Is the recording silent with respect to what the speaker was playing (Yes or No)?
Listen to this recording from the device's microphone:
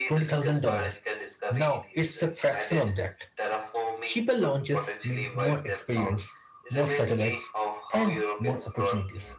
No